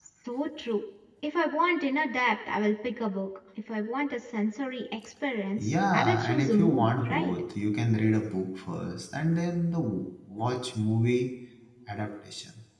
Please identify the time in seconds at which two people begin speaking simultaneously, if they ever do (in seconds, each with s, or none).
5.6 s